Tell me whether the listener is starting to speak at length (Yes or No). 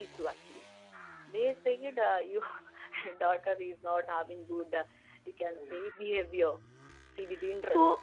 Yes